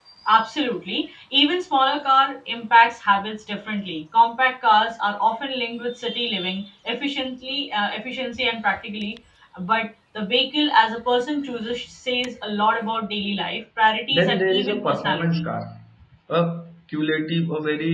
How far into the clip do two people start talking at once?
14.1 s

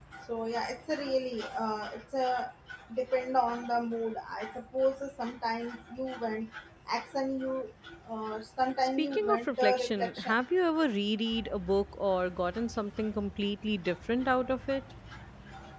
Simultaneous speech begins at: 9.0 s

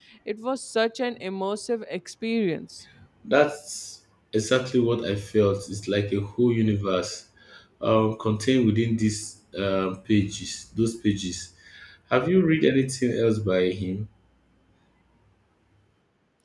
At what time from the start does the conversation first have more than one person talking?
none

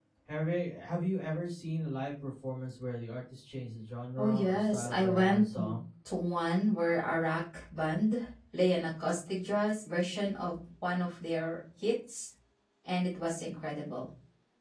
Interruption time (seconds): 4.2 s

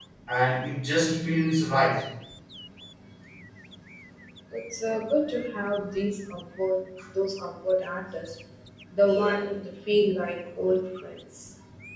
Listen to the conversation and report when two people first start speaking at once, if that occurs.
none

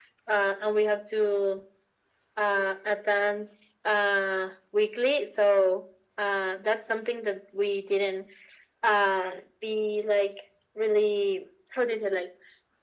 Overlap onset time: none

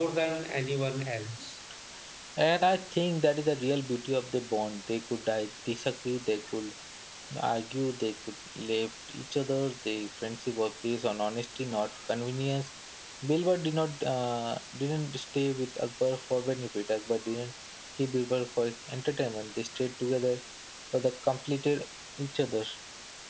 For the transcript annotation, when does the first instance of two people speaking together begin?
none

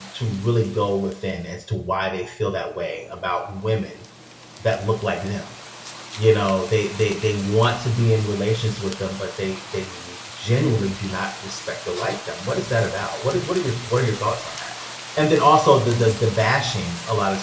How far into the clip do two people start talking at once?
none

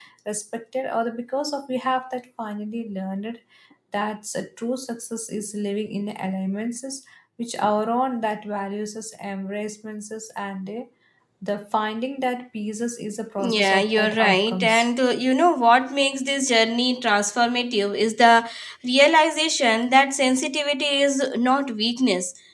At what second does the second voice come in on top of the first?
13.4 s

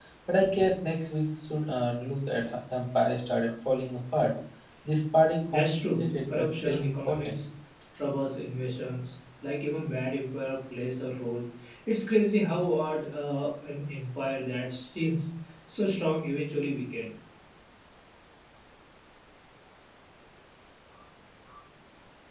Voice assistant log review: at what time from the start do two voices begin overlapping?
5.5 s

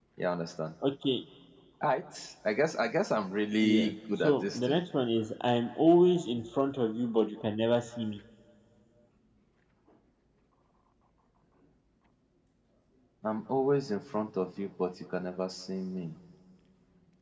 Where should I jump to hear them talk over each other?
3.6 s

